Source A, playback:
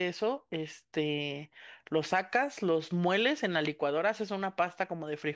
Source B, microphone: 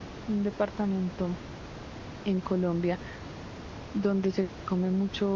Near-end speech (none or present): present